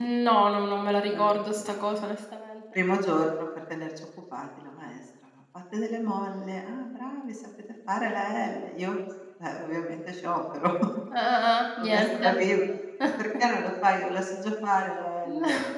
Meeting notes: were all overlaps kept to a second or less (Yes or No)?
Yes